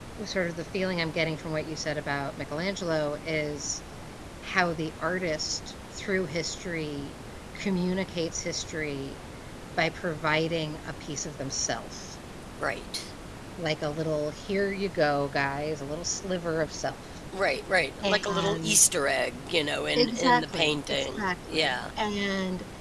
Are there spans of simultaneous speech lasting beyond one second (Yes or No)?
Yes